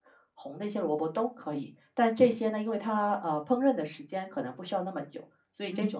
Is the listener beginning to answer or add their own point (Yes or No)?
No